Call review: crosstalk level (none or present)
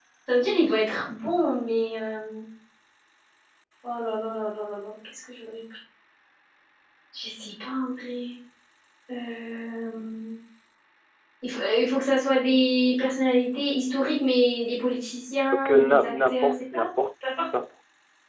present